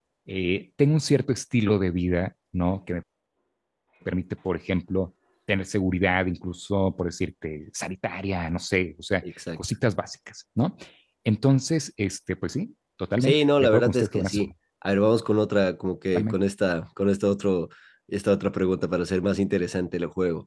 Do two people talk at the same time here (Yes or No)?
Yes